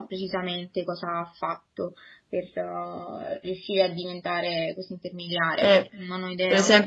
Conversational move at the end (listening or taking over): taking over